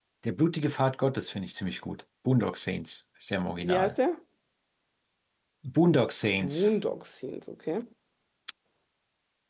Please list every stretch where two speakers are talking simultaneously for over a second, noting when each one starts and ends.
none

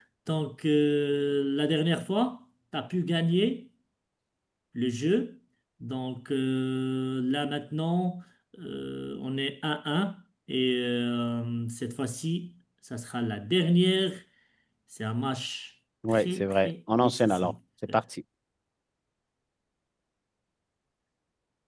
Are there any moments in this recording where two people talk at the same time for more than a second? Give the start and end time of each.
16.1-17.5

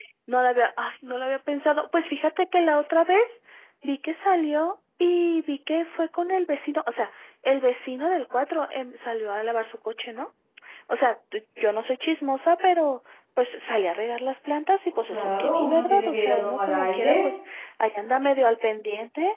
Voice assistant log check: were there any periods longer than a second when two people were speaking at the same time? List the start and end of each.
15.1-17.3

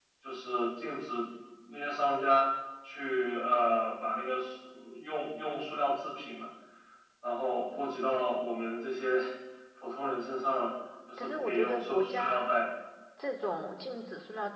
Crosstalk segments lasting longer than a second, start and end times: 11.2-12.5

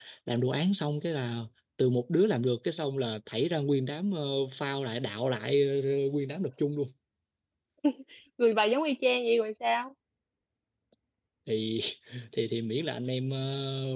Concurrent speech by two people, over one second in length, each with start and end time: none

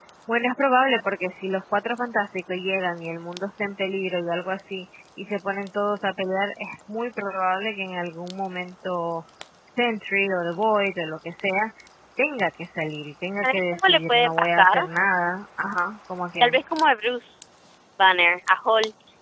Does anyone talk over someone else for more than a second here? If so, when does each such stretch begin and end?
13.4-14.8

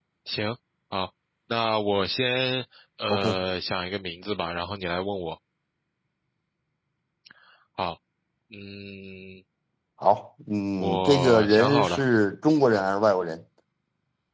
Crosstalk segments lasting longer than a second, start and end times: 10.8-12.0

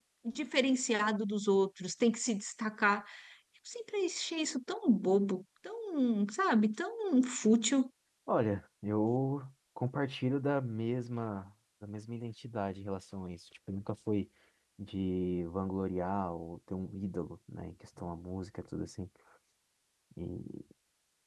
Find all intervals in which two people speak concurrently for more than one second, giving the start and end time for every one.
none

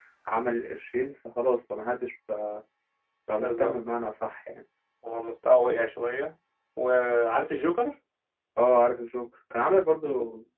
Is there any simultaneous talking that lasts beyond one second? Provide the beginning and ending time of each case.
none

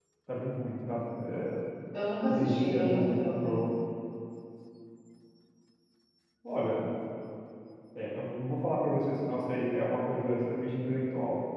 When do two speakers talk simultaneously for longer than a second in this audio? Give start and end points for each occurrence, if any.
2.3-3.6

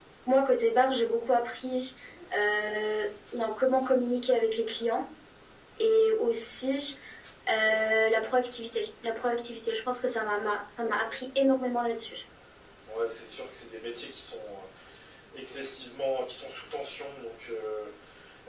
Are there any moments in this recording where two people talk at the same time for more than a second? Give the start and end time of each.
none

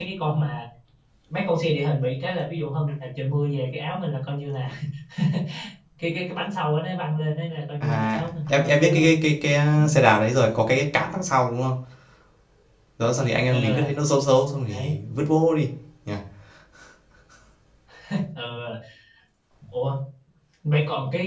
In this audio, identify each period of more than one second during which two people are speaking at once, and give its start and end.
7.8-9.1

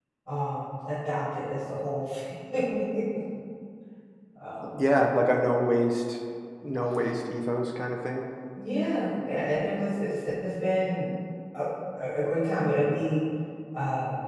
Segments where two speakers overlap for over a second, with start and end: none

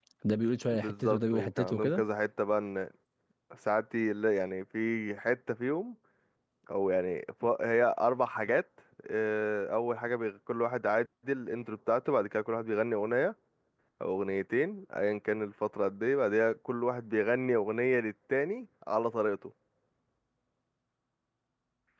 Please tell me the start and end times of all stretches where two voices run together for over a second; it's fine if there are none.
0.7-2.0

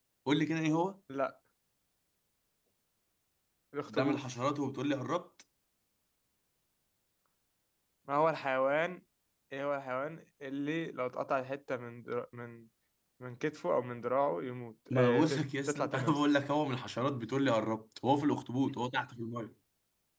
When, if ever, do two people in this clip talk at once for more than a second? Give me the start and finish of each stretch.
14.9-16.2

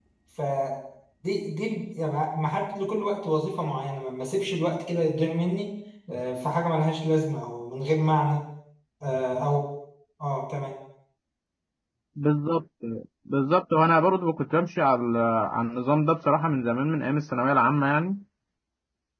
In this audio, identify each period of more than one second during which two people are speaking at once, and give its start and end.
none

